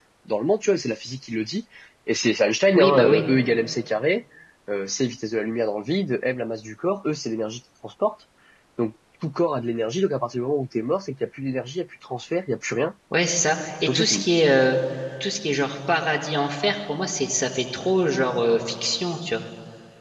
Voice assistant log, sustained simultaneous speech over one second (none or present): none